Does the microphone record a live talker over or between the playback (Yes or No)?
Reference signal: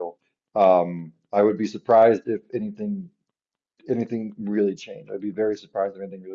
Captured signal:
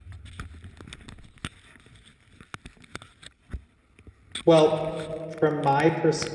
Yes